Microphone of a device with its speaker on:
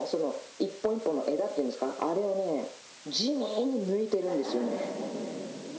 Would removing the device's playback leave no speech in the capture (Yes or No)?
No